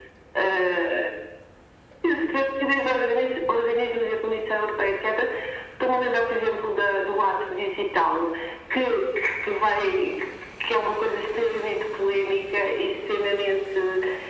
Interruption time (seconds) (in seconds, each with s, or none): none